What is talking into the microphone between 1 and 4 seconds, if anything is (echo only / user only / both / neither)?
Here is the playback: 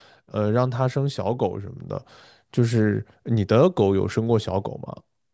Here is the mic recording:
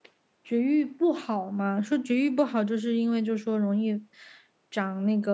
user only